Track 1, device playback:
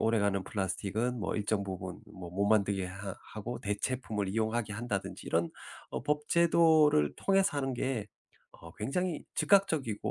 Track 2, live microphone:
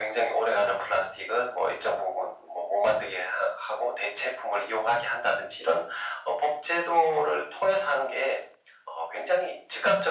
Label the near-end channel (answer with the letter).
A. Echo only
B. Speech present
A